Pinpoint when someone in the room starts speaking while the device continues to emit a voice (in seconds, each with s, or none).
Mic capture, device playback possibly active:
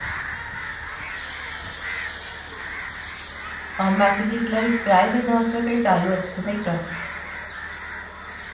3.8 s